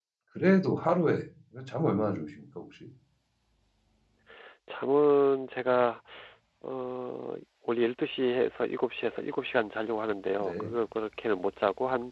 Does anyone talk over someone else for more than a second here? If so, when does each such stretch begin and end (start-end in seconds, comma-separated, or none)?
none